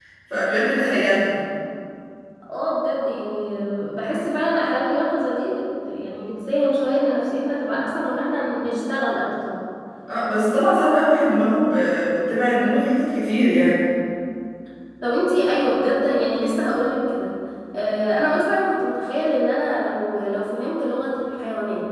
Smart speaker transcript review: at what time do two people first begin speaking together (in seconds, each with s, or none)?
none